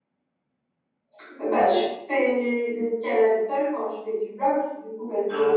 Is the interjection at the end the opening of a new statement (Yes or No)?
No